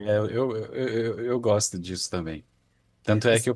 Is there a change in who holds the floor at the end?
No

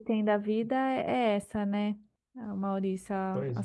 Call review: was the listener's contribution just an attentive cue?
Yes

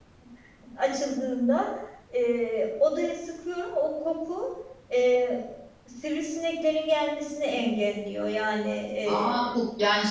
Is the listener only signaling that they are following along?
No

